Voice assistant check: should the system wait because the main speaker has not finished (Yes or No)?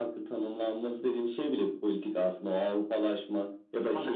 Yes